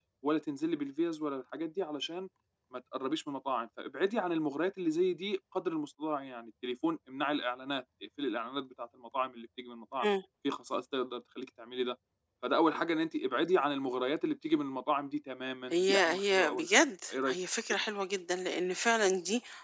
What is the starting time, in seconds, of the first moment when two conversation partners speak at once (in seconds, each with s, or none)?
15.7 s